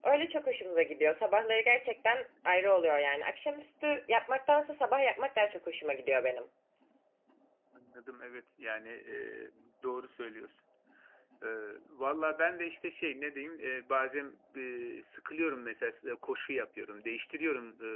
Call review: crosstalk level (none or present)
none